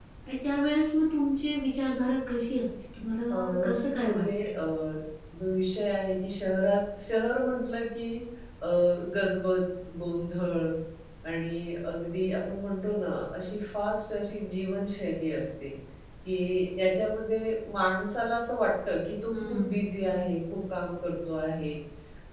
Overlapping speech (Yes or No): Yes